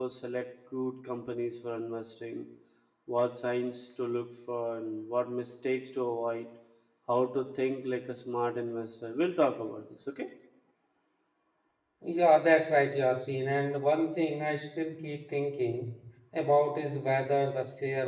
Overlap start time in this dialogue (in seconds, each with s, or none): none